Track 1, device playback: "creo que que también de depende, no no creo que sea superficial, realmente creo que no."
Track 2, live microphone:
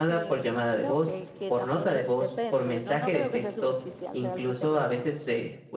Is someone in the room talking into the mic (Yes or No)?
Yes